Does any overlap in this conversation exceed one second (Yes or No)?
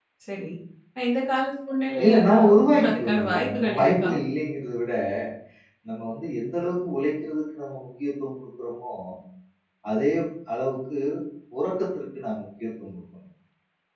Yes